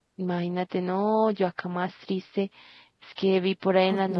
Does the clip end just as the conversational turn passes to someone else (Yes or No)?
No